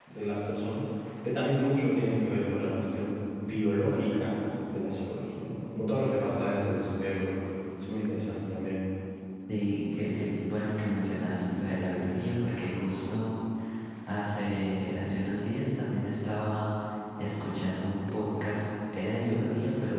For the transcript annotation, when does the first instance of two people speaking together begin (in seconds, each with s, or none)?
none